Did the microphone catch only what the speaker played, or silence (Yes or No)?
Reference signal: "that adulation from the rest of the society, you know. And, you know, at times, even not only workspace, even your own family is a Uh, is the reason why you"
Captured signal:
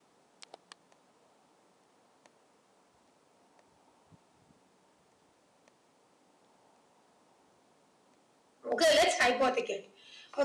No